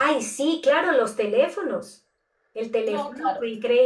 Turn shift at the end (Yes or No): No